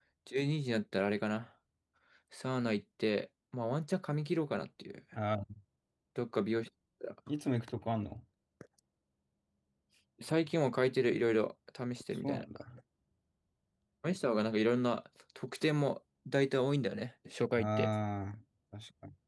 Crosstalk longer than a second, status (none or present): none